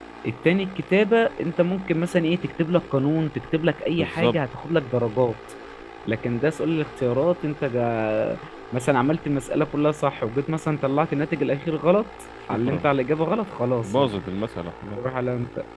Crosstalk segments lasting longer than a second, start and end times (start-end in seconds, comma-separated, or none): none